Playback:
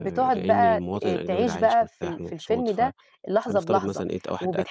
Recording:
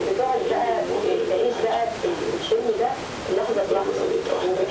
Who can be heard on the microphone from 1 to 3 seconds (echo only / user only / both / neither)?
echo only